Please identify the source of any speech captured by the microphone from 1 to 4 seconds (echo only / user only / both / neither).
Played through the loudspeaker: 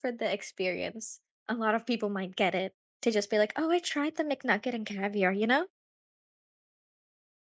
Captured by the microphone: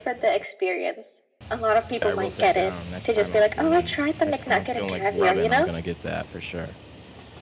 both